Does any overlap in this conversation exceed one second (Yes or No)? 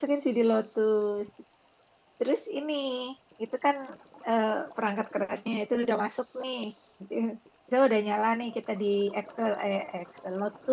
No